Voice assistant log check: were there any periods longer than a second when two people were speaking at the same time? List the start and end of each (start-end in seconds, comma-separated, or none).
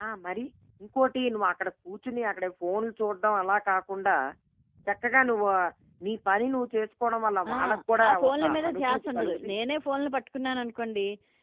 8.1-9.5